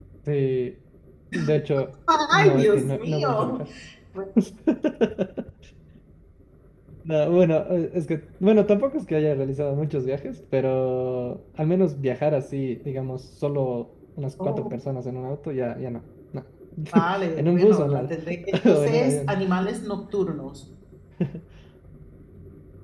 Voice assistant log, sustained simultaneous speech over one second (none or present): present